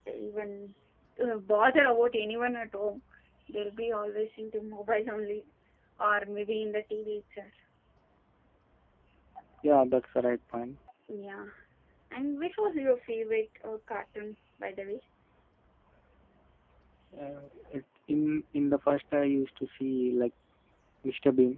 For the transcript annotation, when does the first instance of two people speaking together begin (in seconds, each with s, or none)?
none